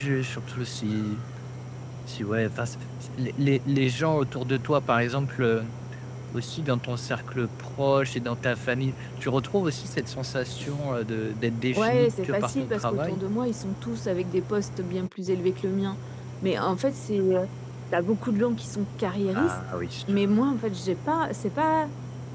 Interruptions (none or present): present